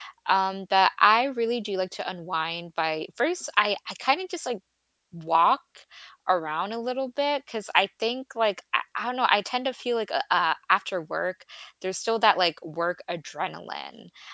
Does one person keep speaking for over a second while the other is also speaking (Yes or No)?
No